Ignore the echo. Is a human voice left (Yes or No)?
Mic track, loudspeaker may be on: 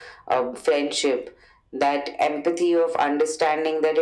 No